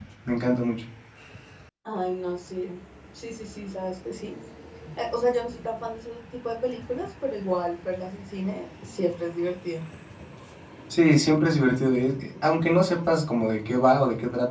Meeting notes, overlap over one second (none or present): none